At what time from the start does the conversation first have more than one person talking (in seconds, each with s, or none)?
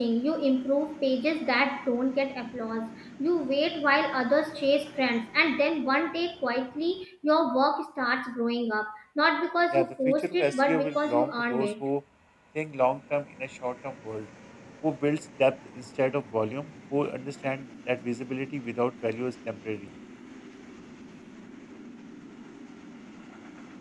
9.7 s